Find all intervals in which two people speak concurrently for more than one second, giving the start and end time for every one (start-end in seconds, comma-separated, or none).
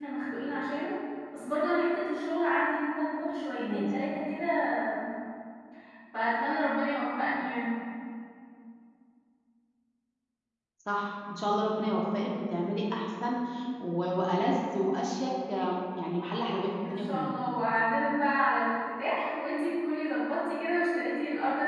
none